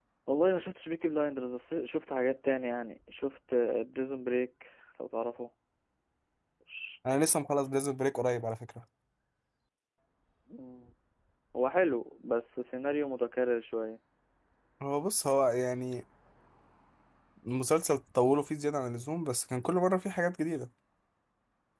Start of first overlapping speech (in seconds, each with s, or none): none